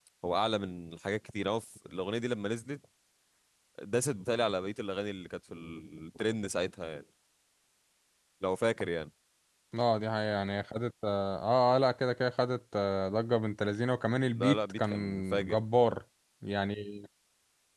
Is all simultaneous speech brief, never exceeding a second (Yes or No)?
No